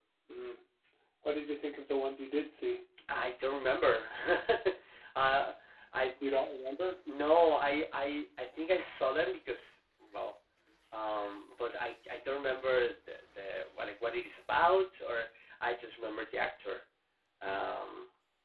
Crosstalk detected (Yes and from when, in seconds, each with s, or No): No